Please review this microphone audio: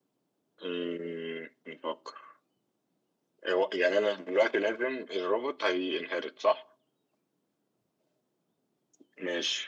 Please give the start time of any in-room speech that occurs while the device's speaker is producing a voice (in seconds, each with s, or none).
none